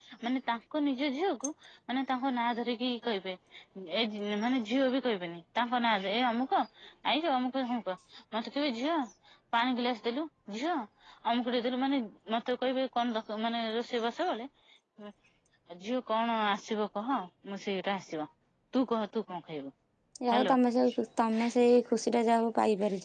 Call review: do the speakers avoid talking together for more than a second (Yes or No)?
Yes